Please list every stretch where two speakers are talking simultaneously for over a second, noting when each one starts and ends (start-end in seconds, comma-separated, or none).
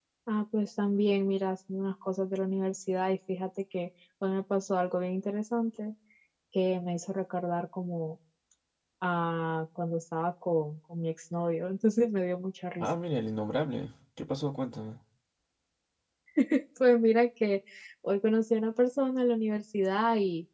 none